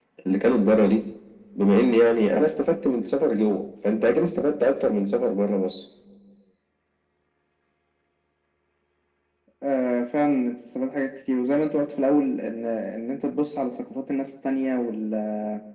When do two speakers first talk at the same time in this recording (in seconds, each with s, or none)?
none